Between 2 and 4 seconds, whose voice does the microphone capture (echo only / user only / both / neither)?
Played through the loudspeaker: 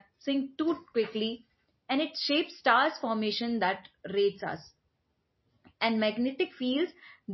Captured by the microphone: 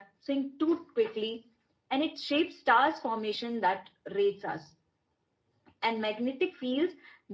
echo only